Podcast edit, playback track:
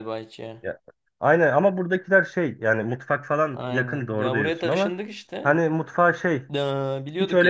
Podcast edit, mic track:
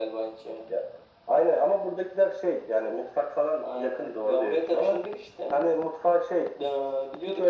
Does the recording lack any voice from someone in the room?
Yes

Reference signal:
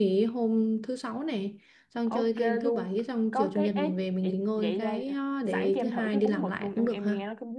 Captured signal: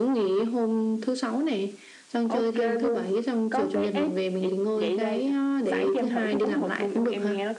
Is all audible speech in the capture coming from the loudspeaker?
Yes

